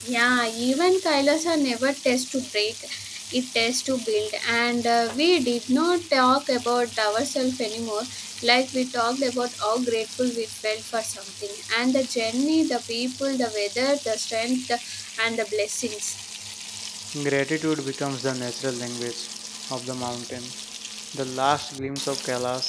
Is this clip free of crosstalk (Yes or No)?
Yes